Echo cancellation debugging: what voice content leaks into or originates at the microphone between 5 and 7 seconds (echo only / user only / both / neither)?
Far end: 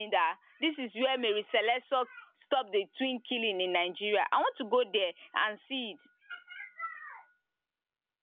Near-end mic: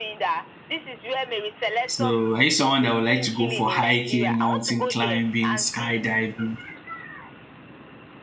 both